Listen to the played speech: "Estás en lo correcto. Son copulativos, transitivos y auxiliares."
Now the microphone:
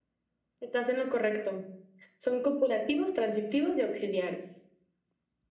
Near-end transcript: none

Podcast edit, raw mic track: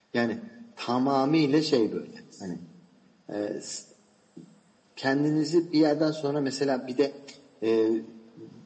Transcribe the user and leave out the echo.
none

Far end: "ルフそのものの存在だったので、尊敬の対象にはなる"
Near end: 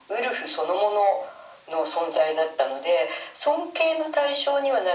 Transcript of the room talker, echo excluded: none

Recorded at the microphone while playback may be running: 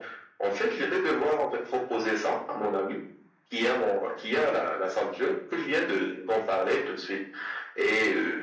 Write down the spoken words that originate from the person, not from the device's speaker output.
none

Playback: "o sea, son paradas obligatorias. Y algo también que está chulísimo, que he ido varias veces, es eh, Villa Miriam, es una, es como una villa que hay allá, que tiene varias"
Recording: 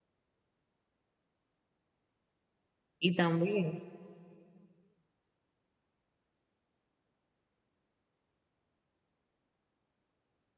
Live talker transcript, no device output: Y también,

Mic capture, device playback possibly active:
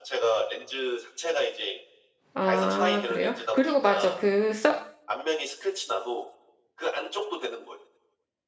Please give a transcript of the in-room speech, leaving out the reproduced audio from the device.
아, 그래요? 그리고 맞아. 그 써,

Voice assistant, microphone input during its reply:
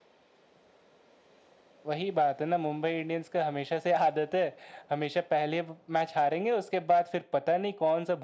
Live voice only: none

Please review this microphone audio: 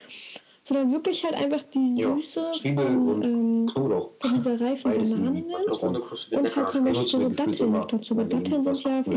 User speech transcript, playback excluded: Aber ich glaube, ohne Kruste wird leckerer schmecken.

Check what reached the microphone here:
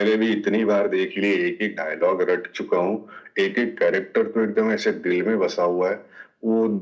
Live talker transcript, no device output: none

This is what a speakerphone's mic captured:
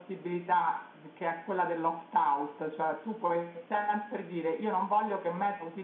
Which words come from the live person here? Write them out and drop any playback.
none

